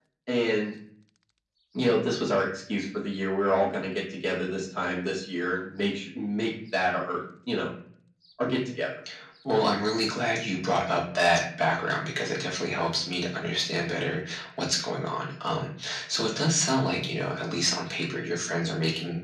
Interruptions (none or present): none